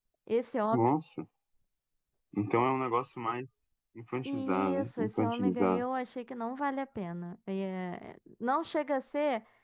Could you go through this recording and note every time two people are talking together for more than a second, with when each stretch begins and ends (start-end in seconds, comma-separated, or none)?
4.2-5.8